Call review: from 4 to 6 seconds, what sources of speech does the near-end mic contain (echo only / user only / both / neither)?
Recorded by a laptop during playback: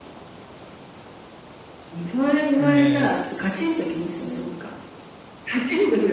echo only